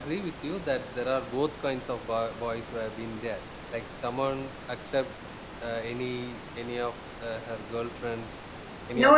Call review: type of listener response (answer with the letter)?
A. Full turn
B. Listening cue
A